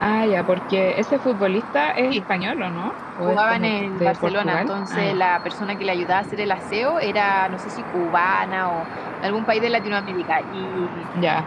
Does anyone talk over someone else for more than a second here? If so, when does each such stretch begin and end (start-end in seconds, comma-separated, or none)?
3.3-5.2